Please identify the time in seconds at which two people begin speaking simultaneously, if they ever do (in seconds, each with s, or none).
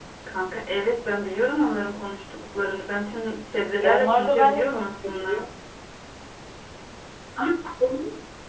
3.8 s